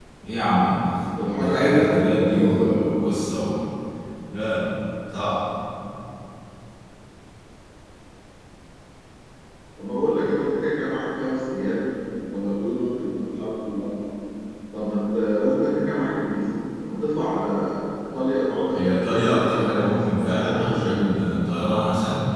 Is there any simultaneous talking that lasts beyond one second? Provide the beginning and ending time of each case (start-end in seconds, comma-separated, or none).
1.4-2.8, 18.7-21.1